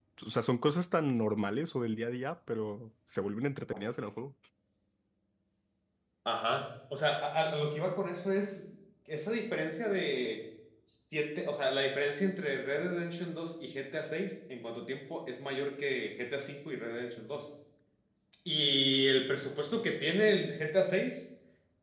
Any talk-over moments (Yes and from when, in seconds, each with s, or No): No